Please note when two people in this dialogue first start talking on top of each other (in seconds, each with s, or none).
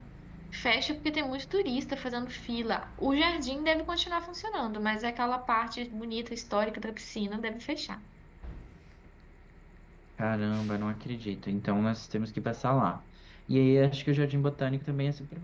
none